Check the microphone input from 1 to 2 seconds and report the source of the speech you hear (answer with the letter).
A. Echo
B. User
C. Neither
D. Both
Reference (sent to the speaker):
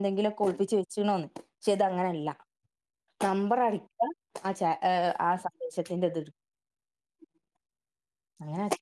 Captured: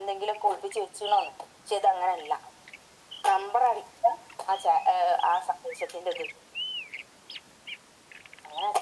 A